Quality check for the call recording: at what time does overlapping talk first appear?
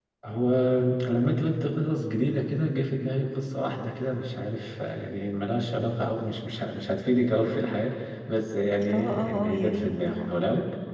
8.8 s

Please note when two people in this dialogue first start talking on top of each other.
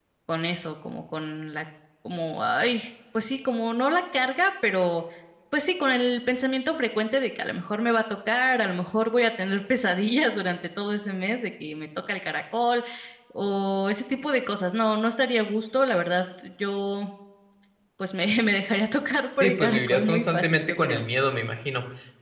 19.4 s

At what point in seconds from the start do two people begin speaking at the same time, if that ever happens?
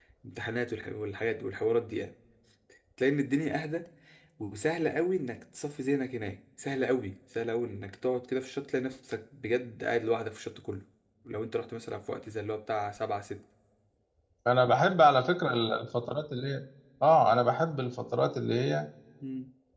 none

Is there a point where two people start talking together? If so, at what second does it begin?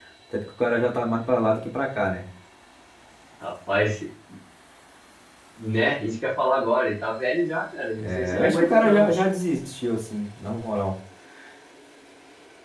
8.0 s

